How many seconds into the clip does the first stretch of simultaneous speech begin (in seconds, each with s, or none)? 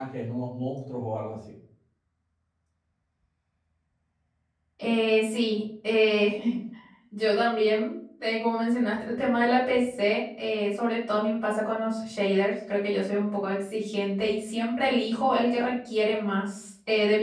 none